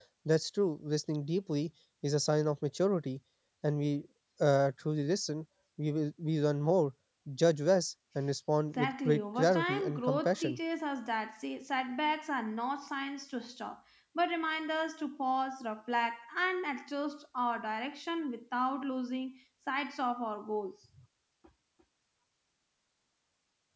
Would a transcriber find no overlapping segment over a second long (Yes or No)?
No